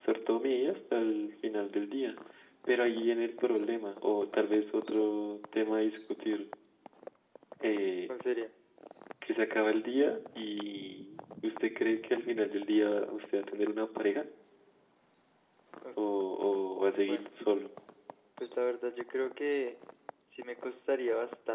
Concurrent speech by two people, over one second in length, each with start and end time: none

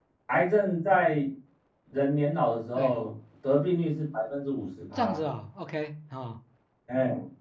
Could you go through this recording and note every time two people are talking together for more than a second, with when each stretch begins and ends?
none

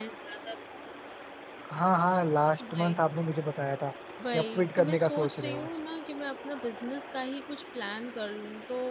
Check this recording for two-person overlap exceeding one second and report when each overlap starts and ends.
4.3-5.7

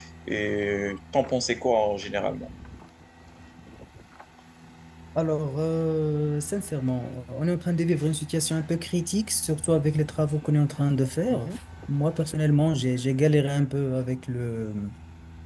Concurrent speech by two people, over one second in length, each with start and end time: none

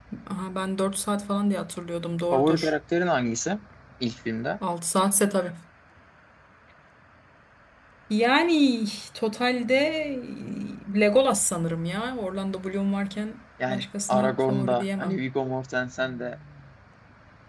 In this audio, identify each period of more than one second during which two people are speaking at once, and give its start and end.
13.7-15.2

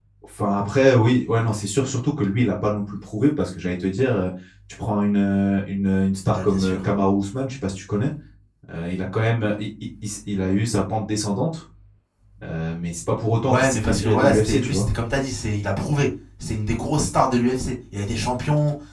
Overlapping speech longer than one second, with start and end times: 13.5-14.9

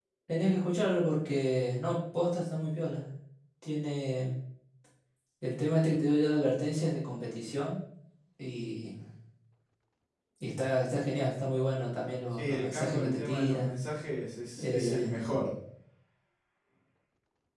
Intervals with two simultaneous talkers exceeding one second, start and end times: 12.3-13.7

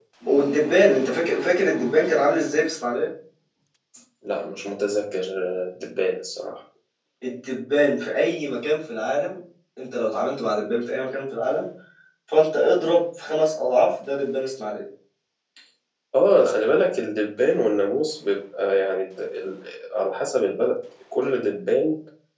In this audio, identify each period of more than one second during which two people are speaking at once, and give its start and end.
none

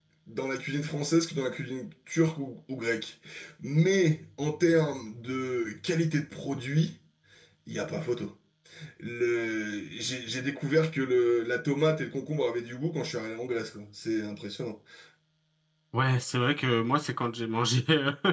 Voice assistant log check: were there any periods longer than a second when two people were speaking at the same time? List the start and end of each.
none

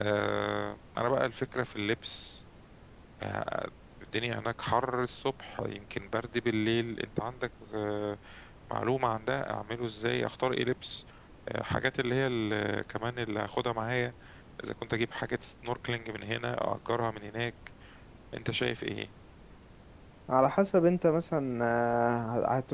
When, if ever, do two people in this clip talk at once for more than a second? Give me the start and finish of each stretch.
none

